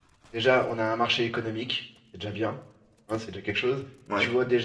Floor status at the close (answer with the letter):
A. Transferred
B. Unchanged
B